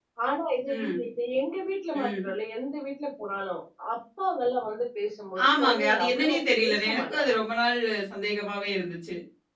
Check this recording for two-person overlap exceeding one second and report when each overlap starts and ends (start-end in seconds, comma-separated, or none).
5.5-7.4